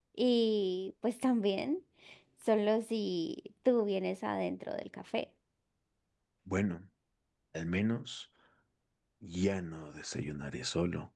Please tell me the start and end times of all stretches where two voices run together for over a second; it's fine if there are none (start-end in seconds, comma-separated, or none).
none